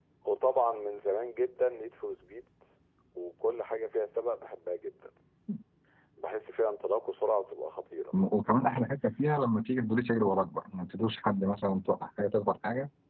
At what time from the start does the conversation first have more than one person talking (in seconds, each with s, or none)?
none